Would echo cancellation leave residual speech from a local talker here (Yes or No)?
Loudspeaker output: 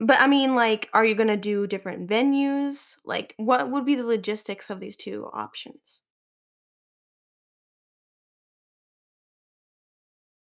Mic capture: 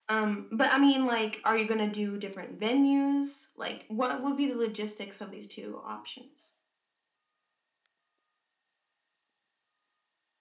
No